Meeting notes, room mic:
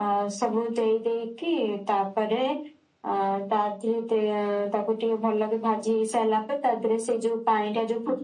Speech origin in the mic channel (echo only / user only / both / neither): echo only